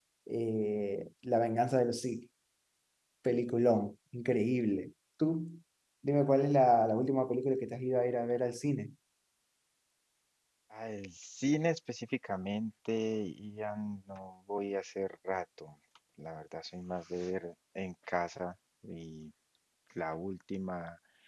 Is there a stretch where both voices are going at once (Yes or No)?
No